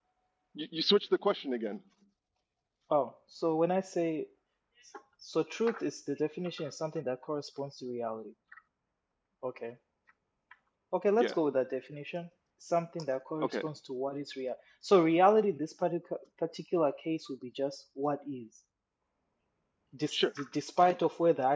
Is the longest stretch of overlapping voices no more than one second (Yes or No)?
Yes